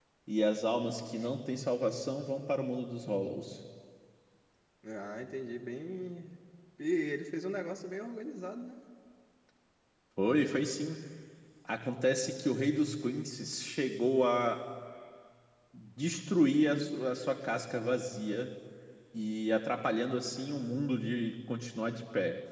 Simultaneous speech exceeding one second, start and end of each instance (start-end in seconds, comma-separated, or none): none